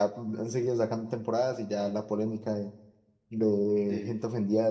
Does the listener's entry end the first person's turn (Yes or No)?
No